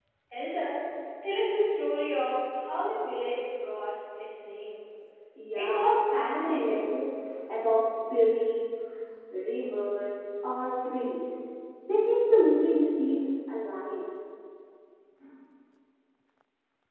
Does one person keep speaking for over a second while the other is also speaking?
Yes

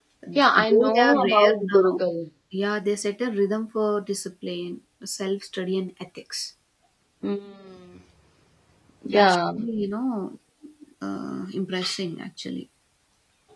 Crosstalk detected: Yes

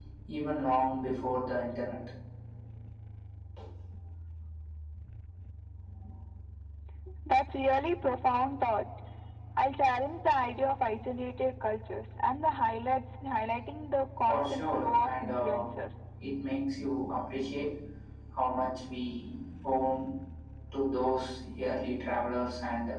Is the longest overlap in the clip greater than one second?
Yes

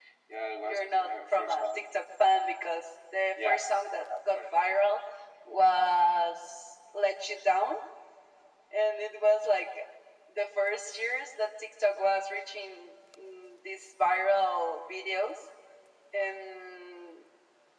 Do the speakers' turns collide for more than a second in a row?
Yes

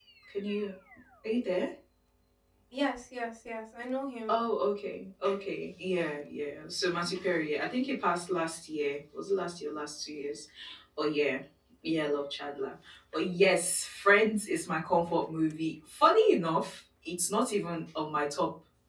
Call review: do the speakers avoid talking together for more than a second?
Yes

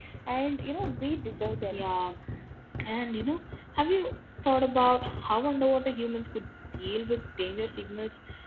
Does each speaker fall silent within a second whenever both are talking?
Yes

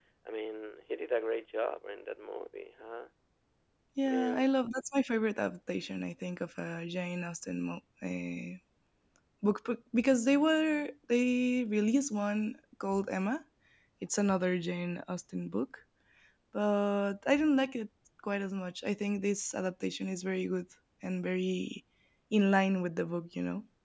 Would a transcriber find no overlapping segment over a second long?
Yes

